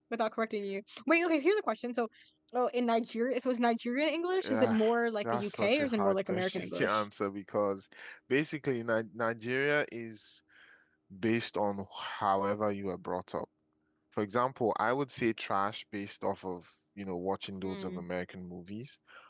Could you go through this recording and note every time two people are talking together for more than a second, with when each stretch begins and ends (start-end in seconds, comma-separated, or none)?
5.2-7.0